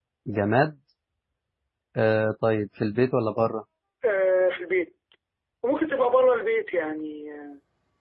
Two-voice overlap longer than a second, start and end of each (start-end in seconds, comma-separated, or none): none